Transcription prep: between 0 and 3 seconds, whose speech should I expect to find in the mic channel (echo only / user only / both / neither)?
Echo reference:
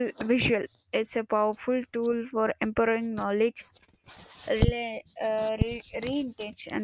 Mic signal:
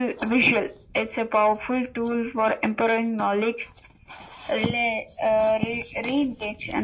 echo only